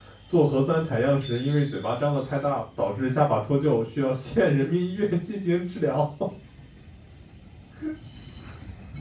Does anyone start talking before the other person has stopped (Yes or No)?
No